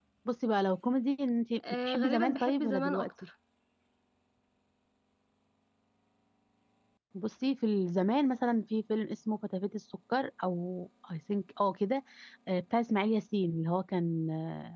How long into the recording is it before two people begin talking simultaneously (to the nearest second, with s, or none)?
2 s